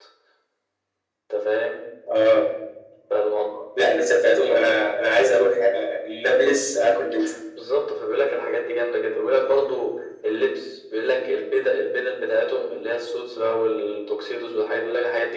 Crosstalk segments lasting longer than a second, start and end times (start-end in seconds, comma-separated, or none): none